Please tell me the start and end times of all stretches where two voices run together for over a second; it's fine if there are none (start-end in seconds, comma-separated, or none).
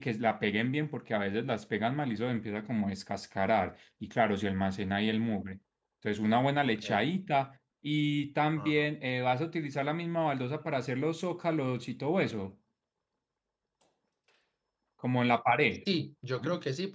none